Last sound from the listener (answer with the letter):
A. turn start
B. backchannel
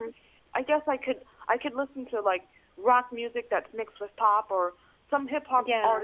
B